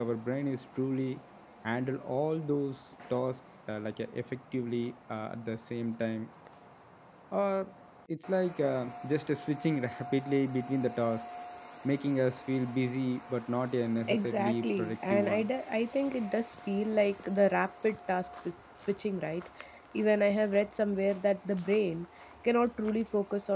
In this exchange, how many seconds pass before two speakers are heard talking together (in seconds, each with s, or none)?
14.1 s